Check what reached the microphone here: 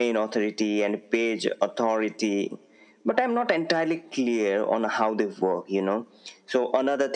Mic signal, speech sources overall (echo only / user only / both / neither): echo only